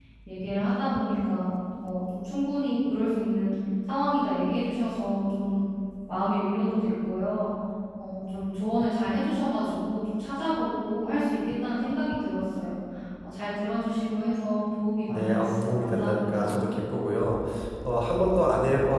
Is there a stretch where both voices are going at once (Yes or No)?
Yes